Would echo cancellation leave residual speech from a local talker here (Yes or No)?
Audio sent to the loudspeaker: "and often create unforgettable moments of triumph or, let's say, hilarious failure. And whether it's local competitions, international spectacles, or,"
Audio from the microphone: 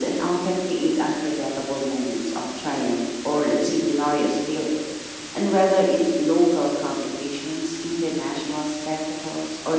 No